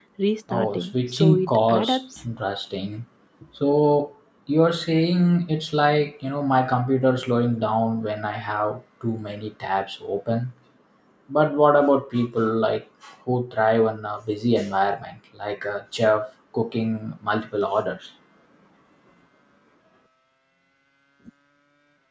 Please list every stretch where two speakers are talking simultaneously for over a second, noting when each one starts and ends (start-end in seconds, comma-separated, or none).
0.5-2.0